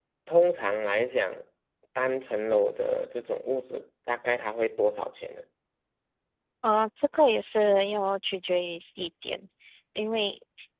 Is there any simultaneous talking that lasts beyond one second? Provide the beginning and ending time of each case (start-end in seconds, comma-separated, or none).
none